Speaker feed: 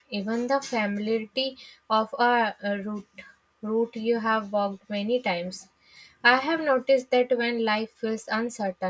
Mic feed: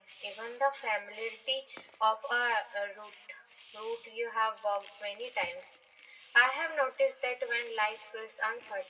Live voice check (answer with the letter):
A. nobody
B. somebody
A